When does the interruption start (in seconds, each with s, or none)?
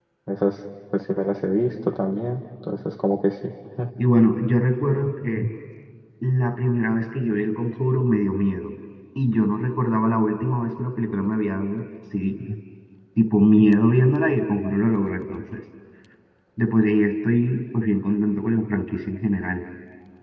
none